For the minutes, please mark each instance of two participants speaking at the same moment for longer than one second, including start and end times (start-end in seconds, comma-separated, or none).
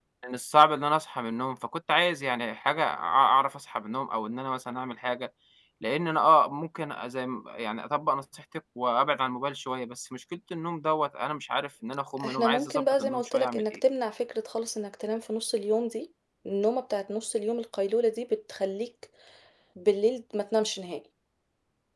12.2-13.8